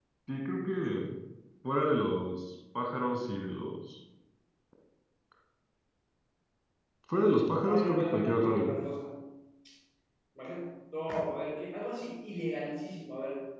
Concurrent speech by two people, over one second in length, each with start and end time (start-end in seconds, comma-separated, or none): 7.6-8.8